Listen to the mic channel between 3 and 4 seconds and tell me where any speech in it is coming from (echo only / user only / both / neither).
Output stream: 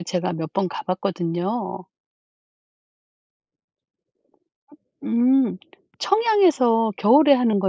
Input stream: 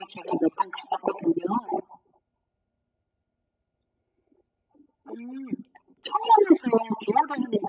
neither